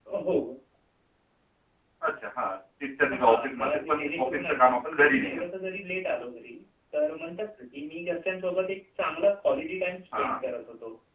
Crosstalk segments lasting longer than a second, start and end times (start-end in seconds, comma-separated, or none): 3.2-5.4